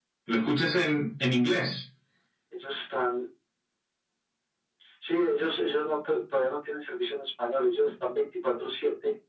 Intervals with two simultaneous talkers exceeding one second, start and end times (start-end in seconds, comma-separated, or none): none